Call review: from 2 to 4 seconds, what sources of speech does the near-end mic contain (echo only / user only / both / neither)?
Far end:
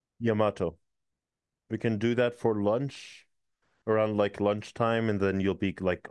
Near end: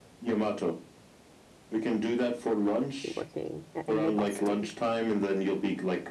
both